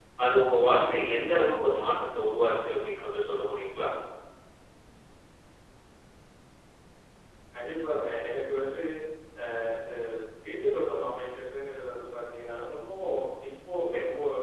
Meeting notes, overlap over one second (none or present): none